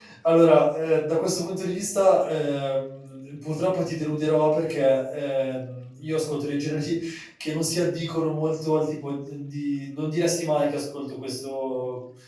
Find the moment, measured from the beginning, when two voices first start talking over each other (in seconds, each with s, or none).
none